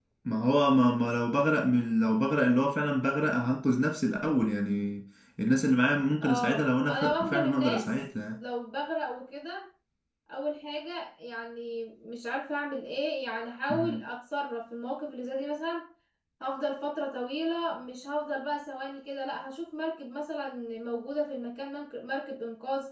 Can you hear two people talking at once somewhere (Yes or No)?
Yes